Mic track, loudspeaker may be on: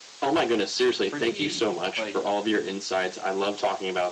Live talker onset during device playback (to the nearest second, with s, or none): 1 s